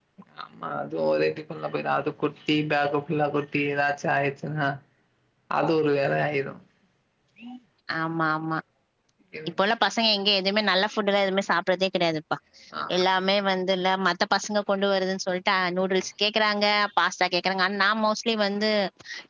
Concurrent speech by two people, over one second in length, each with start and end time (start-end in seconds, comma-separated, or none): none